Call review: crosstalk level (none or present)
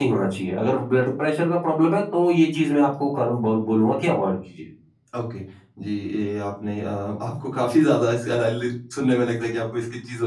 none